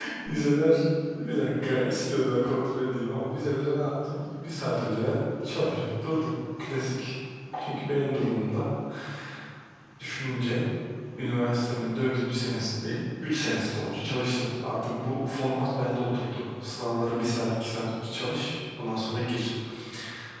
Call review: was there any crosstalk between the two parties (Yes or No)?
No